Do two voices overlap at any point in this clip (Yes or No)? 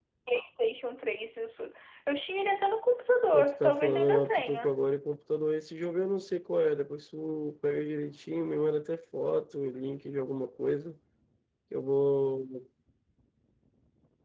Yes